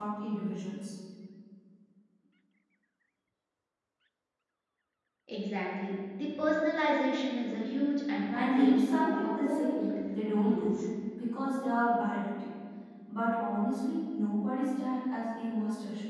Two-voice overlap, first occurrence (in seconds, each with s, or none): 8.3 s